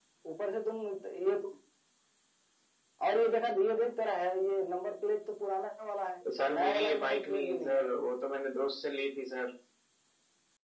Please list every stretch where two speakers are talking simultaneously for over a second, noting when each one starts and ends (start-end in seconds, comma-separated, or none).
6.5-7.9